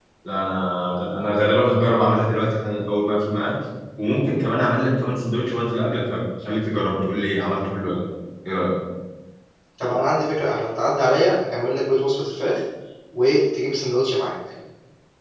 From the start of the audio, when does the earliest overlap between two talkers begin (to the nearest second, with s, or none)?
none